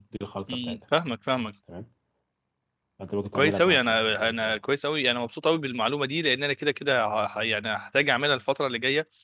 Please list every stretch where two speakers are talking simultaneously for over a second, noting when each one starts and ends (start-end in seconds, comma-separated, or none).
3.3-4.6